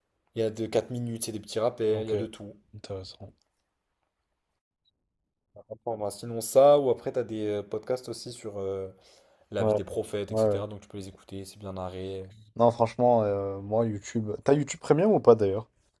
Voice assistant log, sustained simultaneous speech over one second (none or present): none